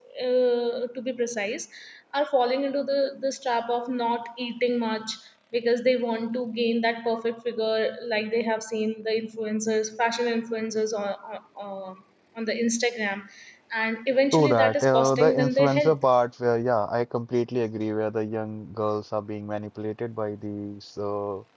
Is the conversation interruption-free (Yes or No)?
No